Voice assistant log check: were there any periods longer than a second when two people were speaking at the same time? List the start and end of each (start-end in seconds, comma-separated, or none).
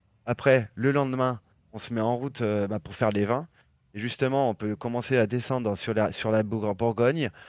none